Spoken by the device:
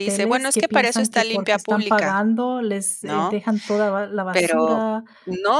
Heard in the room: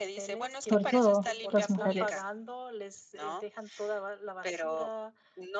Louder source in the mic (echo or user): user